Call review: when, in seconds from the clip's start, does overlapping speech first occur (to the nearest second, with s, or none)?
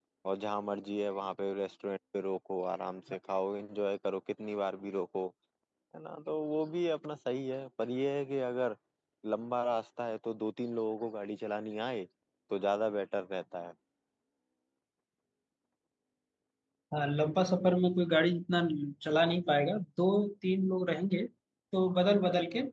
none